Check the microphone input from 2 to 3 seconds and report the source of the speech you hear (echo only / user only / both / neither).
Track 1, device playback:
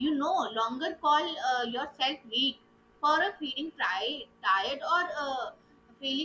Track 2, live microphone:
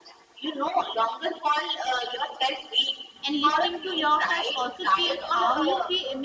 echo only